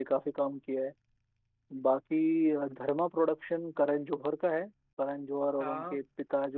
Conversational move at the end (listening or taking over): listening